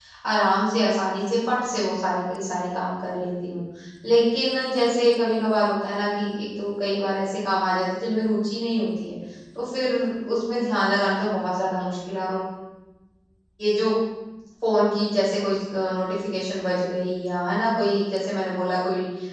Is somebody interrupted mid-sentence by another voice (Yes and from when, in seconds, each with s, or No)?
No